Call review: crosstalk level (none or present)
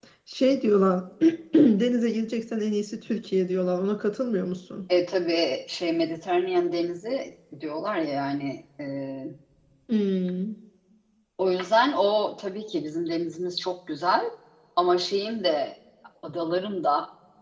none